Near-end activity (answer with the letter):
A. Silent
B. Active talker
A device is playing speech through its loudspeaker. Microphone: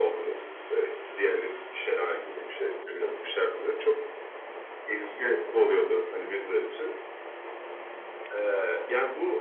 A